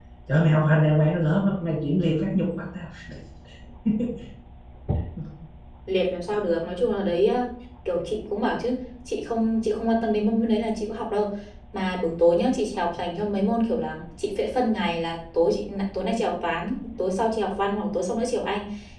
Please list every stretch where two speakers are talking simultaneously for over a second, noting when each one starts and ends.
none

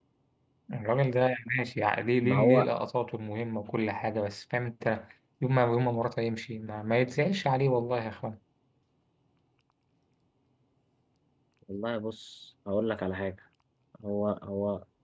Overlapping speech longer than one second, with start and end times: none

